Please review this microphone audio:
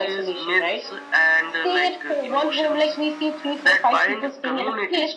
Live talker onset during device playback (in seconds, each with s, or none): none